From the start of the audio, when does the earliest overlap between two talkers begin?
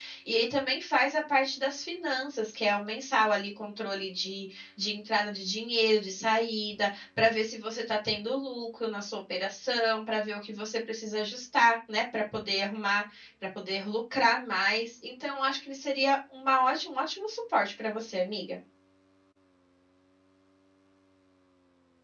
none

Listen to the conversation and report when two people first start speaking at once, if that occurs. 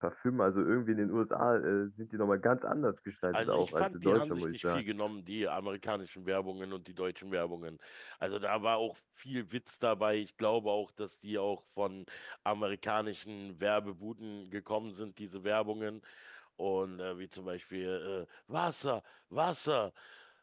3.3 s

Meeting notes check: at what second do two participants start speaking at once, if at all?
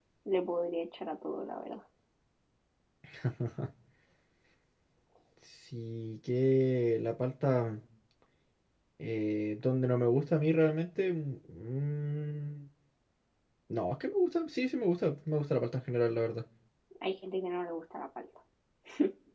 none

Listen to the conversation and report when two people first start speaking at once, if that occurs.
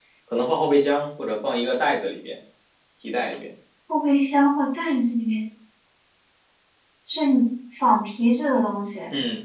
none

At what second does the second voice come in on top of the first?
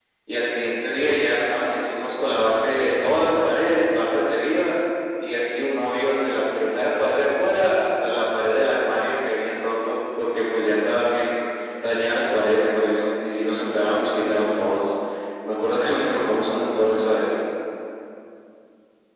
none

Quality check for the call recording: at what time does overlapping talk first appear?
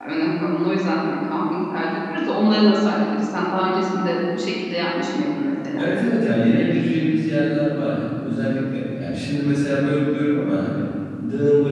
none

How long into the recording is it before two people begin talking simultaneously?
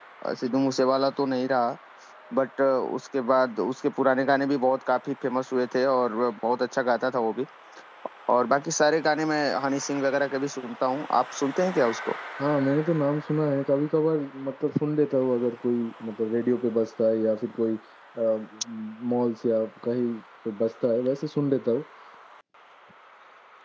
none

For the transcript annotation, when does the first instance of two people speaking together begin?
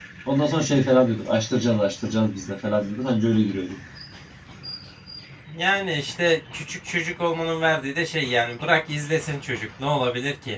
none

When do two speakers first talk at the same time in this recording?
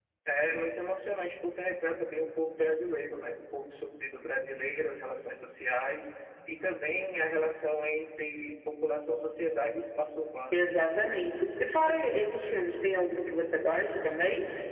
none

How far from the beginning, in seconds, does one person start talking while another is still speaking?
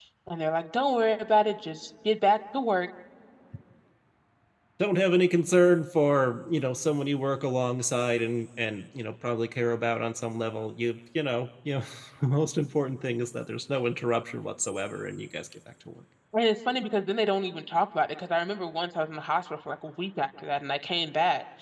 none

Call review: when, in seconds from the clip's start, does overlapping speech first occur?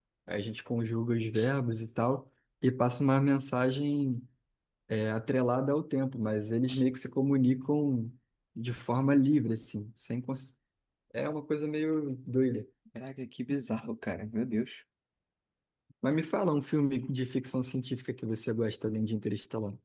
none

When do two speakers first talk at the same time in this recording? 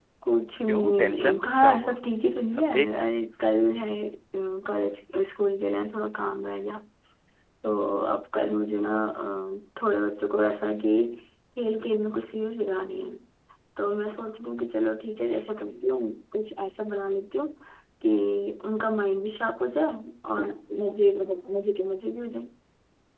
0.7 s

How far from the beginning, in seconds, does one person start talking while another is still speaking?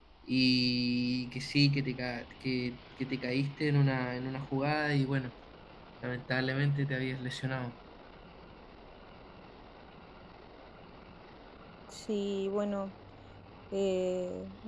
none

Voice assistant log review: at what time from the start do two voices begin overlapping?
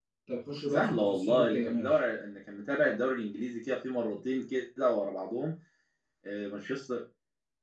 0.7 s

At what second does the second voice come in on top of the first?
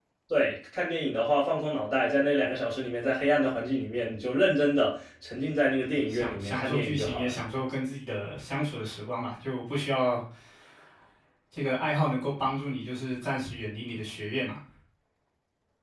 6.1 s

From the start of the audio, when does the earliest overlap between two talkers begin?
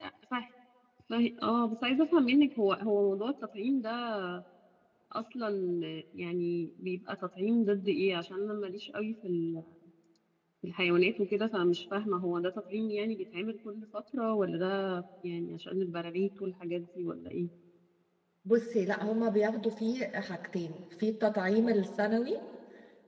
none

